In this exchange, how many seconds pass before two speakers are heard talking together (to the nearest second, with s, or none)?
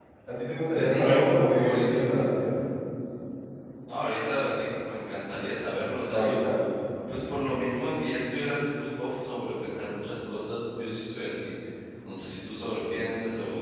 1 s